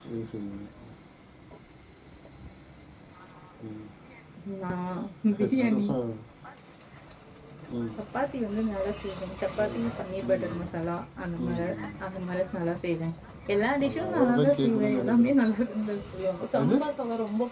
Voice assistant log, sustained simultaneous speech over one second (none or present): present